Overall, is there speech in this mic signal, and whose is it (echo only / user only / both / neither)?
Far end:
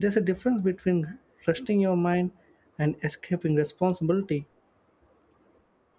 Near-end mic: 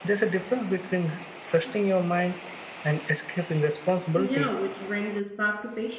both